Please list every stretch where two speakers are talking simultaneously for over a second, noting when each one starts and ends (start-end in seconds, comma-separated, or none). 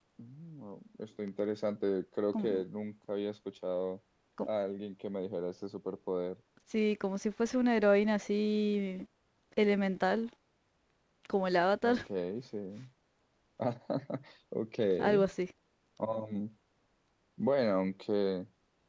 none